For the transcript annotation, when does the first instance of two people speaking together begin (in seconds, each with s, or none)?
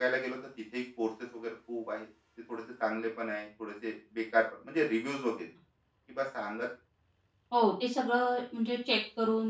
none